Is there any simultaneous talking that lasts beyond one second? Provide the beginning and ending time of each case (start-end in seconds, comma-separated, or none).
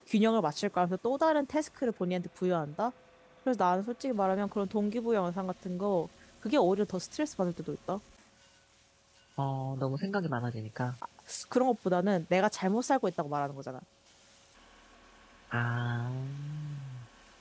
none